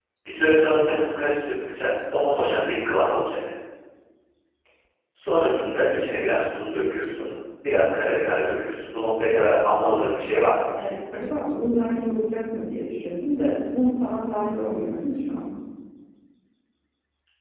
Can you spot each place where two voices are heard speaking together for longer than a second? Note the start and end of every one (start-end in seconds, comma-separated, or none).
none